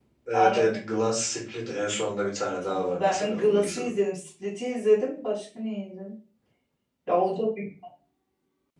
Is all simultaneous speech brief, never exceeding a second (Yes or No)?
No